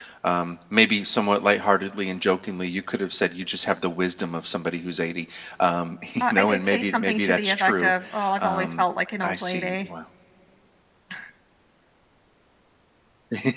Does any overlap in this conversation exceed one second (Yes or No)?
Yes